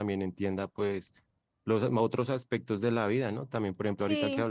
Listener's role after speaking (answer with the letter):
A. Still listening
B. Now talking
A